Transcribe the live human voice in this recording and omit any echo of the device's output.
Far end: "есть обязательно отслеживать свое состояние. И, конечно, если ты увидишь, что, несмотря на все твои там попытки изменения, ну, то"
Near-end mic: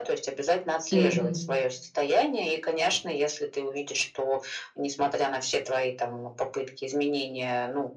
Мгм.

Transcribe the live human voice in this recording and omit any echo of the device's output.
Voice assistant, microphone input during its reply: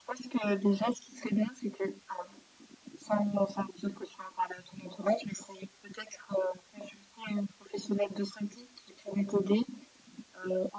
none

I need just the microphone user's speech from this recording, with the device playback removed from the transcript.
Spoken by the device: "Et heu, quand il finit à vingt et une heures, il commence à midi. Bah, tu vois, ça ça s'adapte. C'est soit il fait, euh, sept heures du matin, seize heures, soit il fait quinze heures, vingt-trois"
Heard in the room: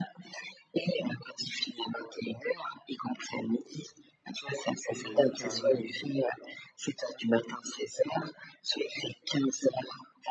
Oui, de tout faire lui-même.

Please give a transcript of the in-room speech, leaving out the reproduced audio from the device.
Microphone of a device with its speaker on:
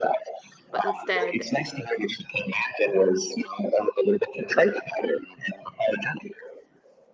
But instead,

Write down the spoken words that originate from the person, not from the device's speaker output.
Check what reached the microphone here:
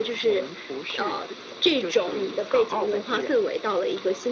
none

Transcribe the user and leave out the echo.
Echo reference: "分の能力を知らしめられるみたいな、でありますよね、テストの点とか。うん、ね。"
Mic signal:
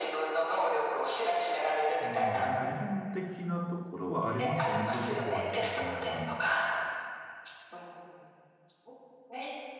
そういうのは、なんか日本的なところはありますよね。そういうとこは結構皆さん。

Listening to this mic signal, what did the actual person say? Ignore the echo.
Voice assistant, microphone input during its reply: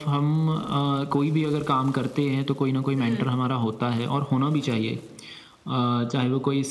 हुँ,

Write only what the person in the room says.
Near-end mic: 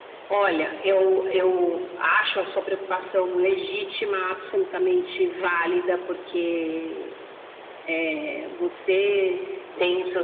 none

